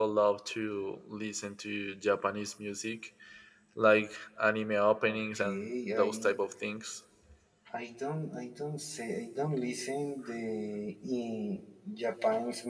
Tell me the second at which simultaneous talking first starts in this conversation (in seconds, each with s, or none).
5.1 s